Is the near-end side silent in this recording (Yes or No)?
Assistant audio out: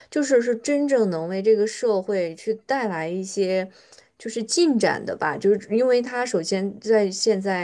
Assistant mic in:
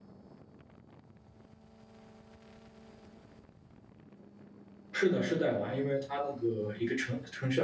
No